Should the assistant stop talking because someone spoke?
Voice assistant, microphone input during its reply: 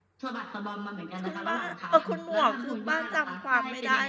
Yes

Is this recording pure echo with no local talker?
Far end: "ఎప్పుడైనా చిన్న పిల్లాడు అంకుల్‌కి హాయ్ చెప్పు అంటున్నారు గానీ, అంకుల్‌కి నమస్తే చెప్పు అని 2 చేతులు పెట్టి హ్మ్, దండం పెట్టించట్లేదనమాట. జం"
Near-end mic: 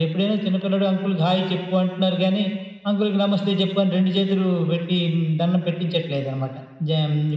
Yes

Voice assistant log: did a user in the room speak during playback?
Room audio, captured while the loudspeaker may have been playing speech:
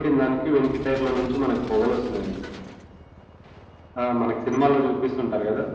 No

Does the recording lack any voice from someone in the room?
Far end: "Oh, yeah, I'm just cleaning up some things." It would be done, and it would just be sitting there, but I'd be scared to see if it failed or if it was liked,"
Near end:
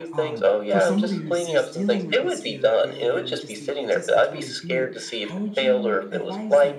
No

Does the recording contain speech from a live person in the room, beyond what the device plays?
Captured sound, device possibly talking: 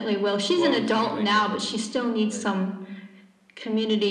Yes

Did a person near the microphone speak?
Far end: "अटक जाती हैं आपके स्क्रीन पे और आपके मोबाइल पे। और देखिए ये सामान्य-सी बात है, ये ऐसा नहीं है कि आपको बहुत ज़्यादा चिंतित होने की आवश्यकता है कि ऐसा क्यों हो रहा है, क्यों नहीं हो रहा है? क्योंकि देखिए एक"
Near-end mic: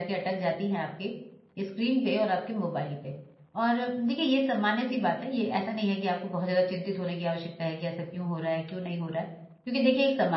No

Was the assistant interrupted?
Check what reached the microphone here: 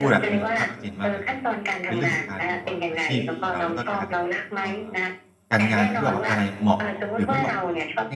Yes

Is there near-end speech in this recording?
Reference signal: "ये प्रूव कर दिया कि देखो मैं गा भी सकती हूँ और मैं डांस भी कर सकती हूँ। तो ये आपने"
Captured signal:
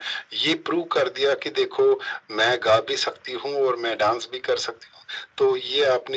No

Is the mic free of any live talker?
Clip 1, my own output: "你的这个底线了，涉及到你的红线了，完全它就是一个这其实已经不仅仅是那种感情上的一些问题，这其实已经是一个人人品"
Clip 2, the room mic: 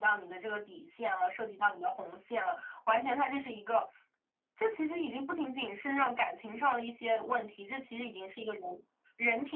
Yes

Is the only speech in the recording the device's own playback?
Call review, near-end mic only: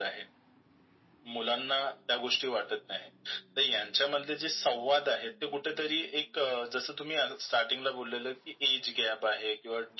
Yes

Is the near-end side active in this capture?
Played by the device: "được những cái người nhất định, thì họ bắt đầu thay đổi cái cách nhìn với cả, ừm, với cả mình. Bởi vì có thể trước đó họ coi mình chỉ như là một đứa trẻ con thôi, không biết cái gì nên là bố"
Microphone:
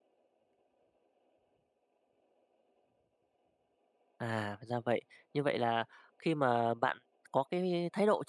Yes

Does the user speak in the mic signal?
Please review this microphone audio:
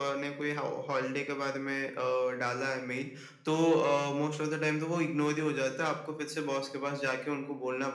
No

